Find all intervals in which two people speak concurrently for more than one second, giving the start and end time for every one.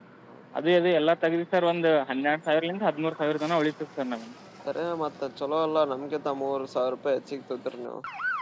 none

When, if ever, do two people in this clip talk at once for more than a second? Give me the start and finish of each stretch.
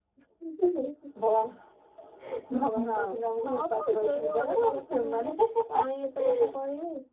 3.5-5.3

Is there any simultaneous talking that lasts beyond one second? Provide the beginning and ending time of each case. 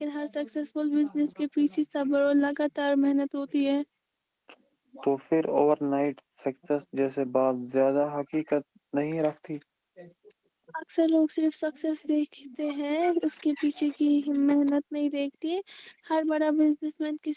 none

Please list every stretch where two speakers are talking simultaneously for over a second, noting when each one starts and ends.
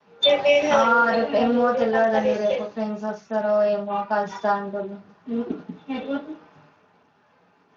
0.8-2.6

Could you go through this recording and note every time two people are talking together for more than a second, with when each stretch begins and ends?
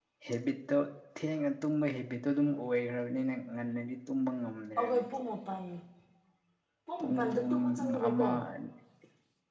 7.0-8.3

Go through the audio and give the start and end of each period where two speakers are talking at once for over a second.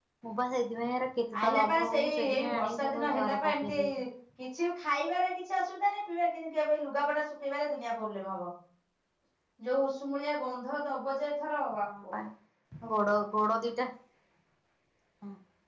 1.4-4.0

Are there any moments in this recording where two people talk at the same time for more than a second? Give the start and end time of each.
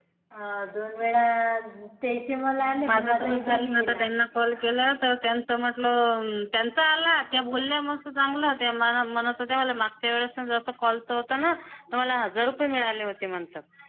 2.6-4.1

